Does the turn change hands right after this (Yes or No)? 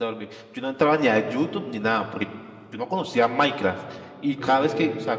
No